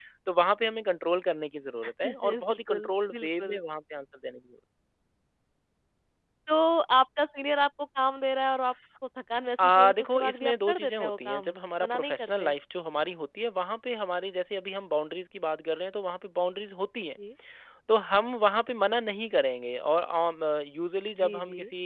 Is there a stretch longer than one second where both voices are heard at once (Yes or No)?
Yes